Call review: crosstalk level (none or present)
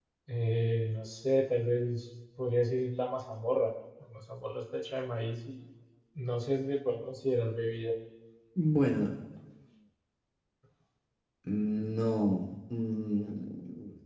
none